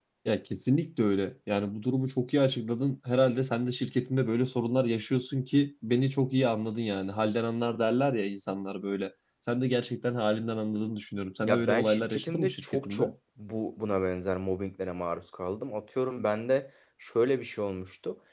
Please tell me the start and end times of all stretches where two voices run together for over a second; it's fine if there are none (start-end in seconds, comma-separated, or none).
11.5-13.0